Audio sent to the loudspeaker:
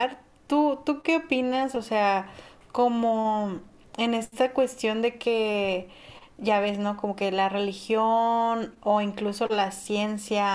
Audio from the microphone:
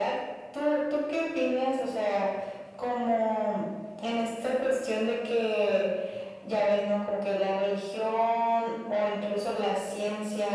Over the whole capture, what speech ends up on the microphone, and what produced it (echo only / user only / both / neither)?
echo only